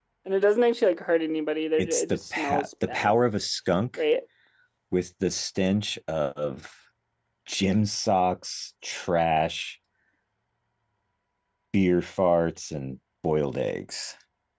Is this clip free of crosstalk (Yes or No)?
No